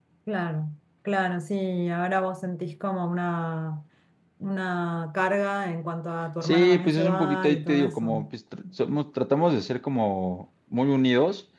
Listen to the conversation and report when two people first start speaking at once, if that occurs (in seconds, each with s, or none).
6.4 s